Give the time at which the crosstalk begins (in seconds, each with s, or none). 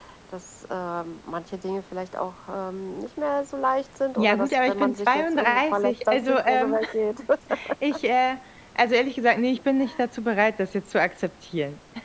4.2 s